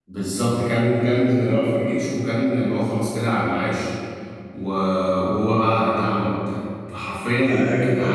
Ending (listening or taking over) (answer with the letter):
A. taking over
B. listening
A